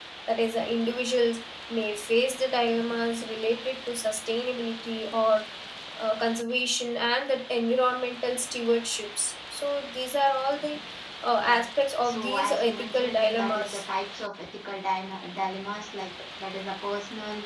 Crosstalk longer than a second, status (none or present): present